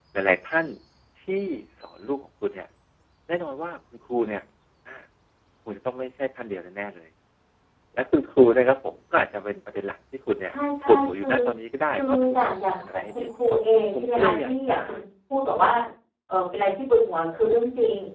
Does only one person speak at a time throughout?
No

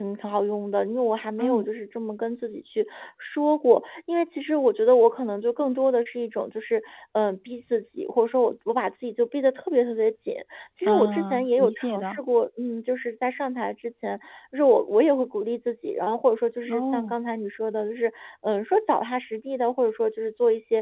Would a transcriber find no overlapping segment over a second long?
No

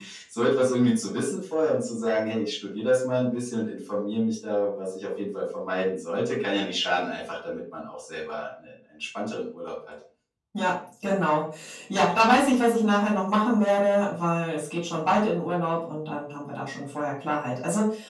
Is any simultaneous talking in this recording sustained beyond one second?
No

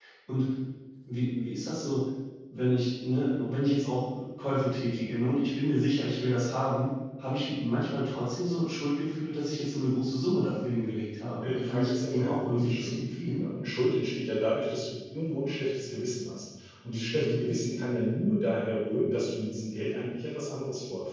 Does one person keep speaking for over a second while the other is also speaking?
Yes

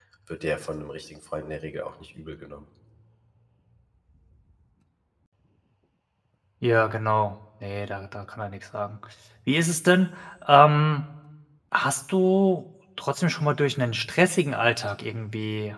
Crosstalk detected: No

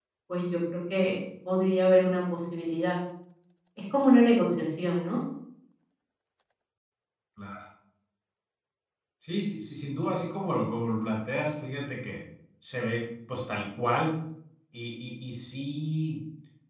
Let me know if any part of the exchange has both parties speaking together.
No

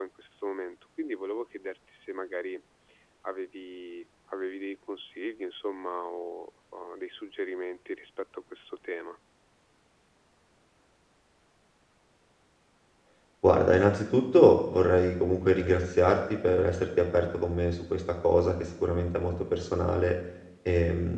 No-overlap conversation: Yes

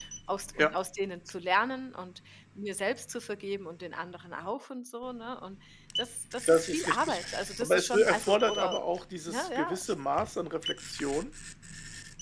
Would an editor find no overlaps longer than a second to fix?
No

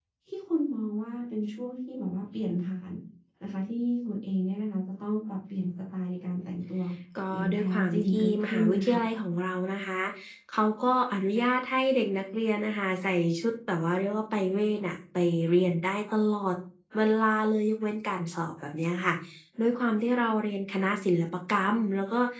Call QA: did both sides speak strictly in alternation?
No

